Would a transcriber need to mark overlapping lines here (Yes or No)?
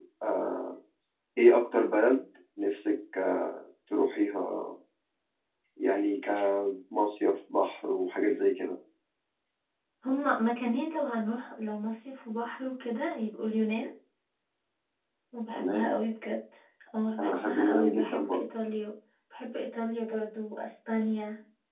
Yes